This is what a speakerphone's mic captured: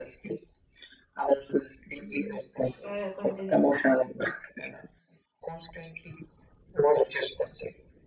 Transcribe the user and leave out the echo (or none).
Mhm. yeah yeah continue